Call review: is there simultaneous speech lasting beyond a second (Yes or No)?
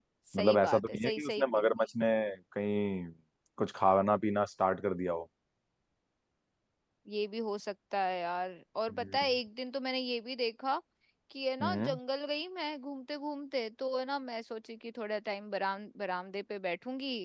Yes